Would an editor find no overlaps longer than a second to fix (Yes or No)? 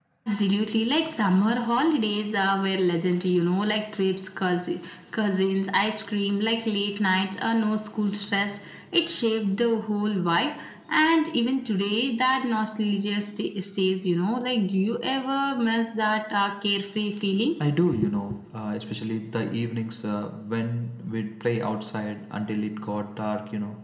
Yes